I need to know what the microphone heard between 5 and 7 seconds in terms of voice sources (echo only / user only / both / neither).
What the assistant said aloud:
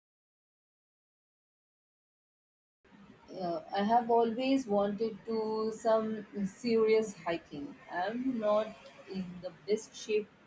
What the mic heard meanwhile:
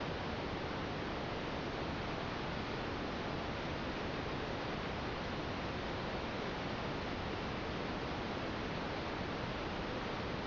neither